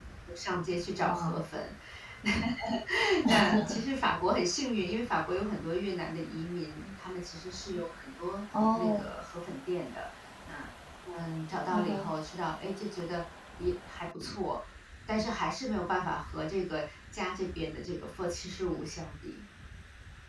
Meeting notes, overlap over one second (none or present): none